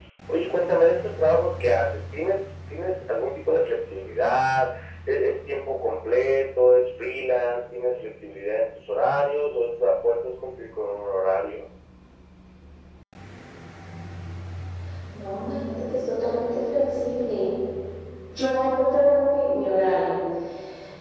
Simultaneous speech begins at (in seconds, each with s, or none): none